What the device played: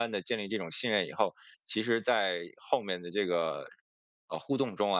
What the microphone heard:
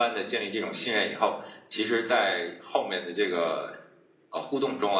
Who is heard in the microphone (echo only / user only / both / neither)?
echo only